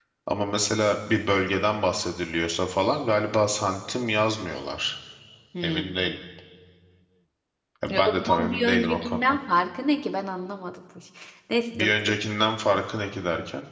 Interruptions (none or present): present